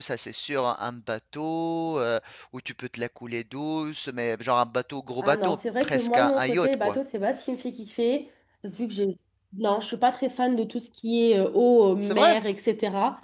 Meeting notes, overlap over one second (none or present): present